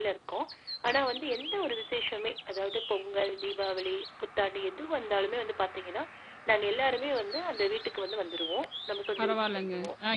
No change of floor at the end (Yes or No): No